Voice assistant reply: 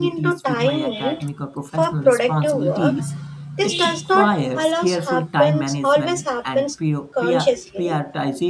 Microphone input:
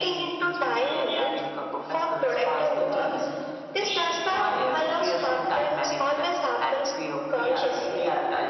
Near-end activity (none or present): none